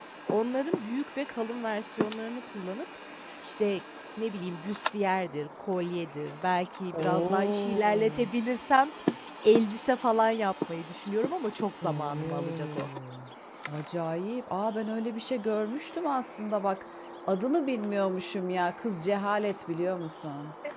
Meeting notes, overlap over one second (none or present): present